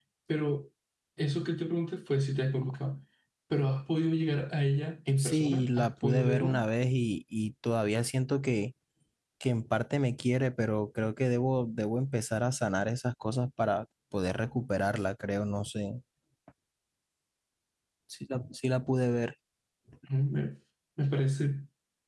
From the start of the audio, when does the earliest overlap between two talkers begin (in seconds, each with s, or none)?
5.2 s